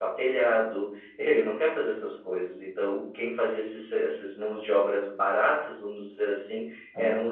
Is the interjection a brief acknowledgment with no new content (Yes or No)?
Yes